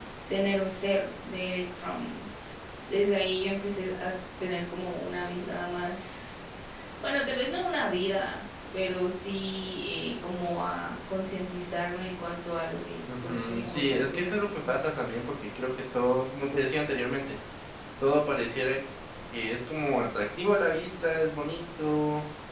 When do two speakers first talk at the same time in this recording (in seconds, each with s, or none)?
13.1 s